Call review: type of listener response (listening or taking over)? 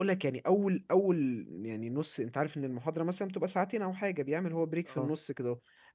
listening